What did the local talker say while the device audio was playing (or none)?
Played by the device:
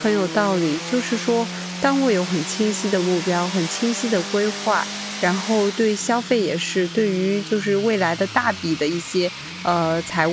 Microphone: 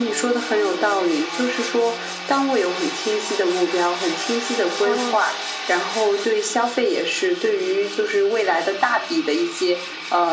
嗯，